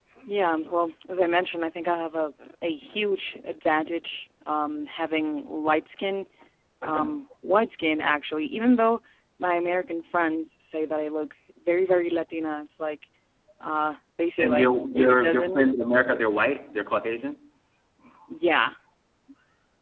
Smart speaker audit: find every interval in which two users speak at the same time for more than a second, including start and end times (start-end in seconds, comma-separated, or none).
14.4-15.8